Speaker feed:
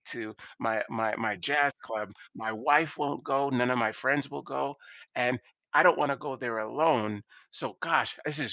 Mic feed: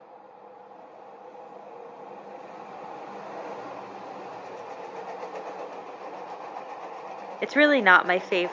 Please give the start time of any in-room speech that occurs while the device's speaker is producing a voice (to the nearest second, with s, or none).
7 s